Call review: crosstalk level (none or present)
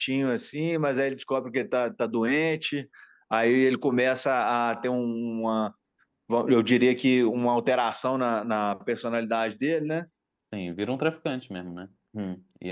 none